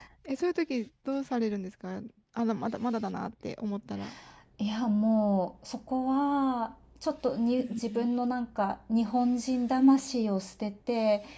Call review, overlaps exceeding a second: none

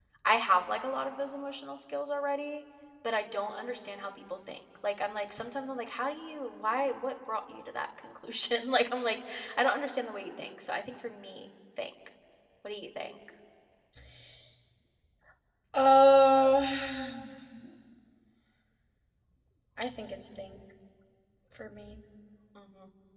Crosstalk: none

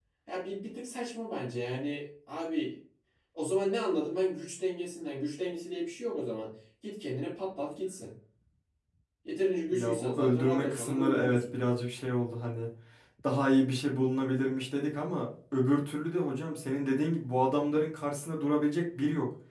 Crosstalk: present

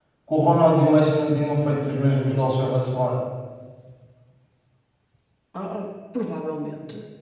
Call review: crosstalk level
none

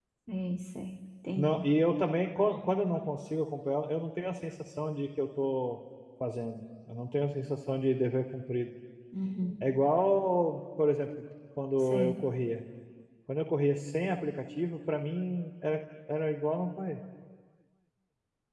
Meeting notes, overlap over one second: none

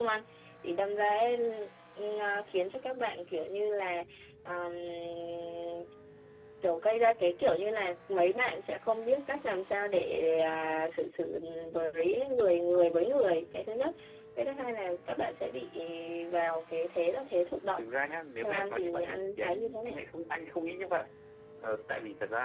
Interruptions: present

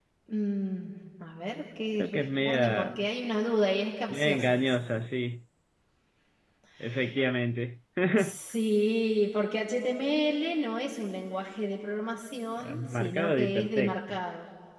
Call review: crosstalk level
present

